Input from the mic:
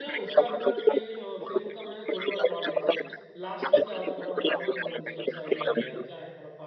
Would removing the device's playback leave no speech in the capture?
No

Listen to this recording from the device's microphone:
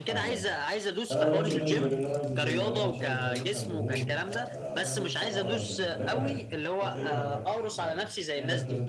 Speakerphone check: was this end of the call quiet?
No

